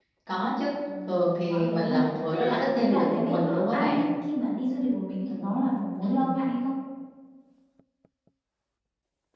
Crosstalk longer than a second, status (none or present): present